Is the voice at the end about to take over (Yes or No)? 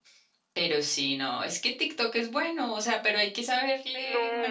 Yes